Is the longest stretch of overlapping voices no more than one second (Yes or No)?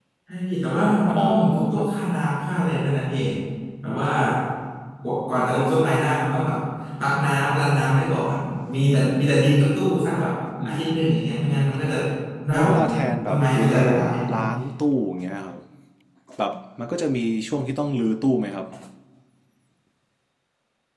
No